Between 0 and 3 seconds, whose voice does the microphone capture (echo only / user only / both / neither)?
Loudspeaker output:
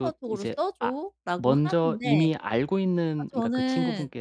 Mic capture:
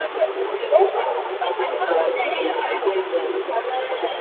echo only